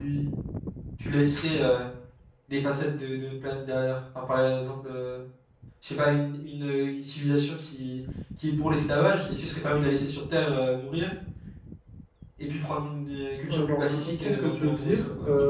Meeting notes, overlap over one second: present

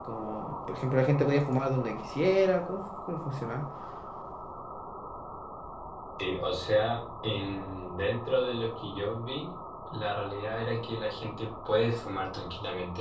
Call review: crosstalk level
none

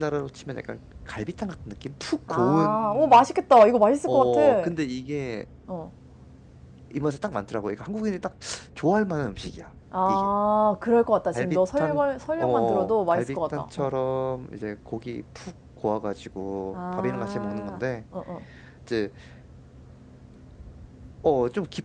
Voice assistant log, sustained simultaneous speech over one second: present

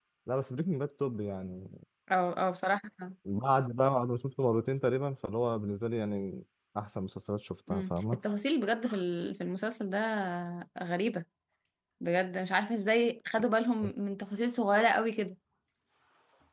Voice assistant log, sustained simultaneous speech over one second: none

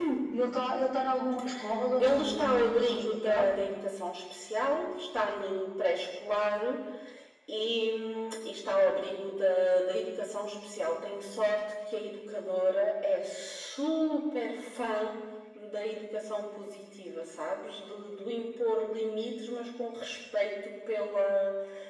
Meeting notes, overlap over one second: present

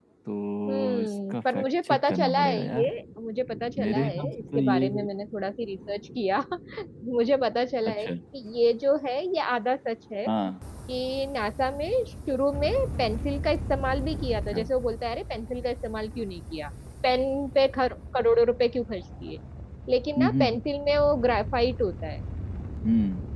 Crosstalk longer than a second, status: present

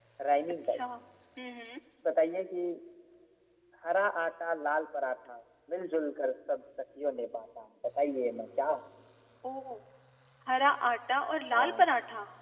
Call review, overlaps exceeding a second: none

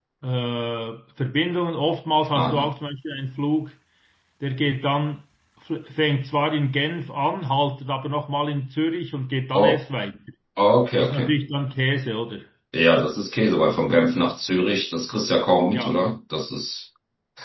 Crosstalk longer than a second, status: none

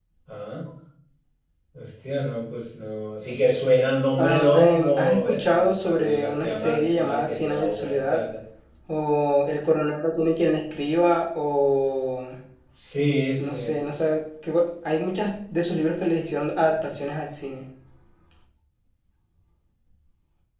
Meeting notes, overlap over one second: present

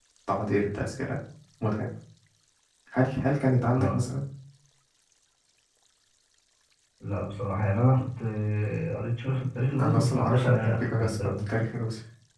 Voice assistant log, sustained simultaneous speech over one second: present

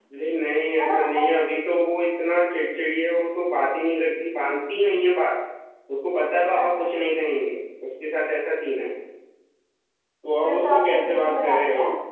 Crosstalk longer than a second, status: present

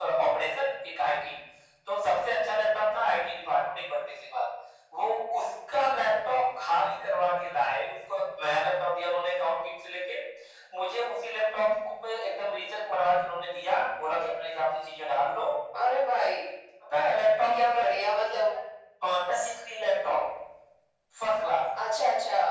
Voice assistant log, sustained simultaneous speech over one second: none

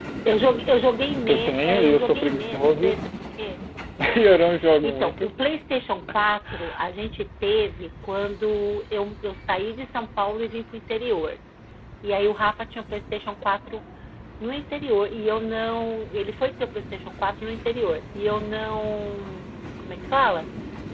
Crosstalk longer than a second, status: present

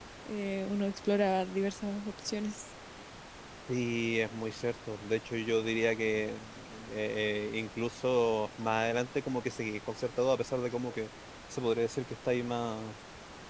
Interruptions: none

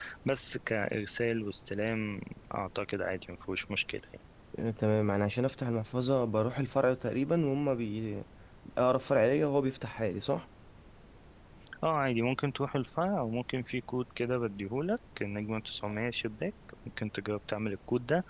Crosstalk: none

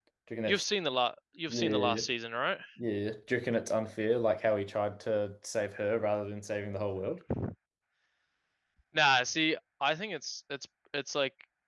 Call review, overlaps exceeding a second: none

